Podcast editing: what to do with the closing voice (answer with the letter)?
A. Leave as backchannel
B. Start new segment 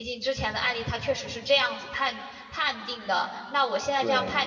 A